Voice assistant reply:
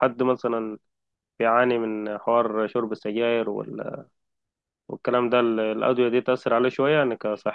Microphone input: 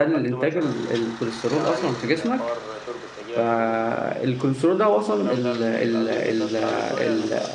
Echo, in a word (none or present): present